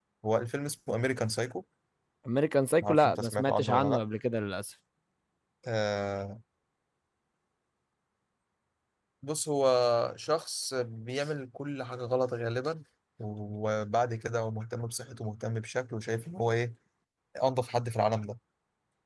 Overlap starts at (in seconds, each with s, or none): 2.8 s